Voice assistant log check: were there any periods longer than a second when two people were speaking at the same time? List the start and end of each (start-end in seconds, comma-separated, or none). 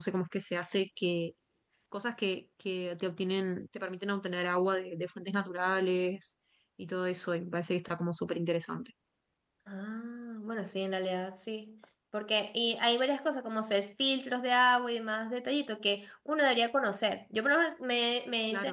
none